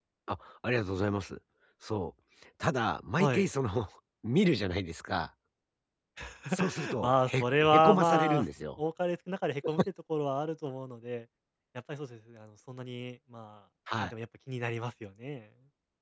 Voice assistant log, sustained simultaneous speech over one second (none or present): present